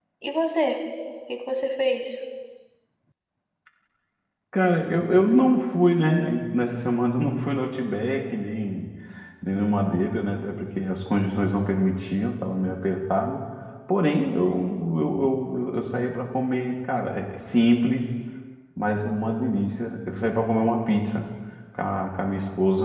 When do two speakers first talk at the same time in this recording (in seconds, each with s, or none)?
none